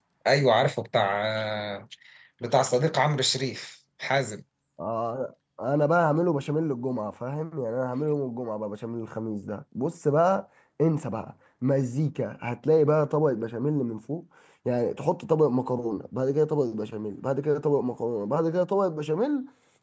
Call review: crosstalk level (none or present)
none